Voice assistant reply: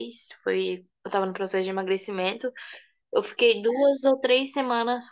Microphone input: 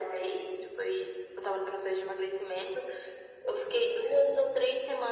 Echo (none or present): present